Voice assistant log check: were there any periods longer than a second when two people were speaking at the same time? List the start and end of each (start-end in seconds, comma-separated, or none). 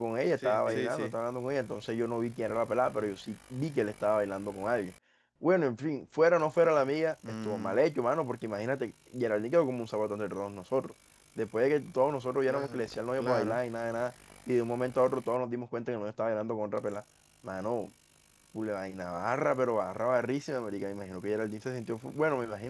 none